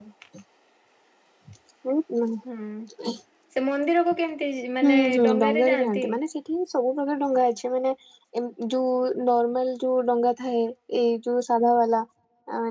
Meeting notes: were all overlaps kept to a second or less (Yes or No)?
No